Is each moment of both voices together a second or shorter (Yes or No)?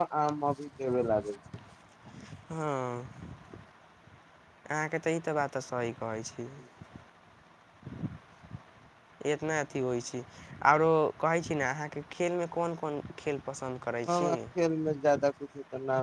Yes